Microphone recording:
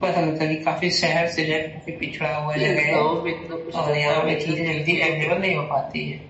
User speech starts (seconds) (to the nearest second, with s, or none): 3 s